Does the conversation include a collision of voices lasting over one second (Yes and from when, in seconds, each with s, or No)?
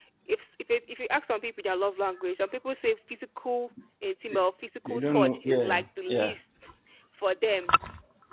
Yes, from 4.9 s